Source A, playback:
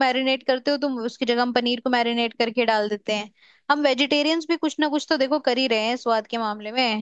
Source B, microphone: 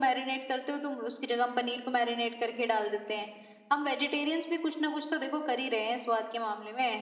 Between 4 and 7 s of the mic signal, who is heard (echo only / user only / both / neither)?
echo only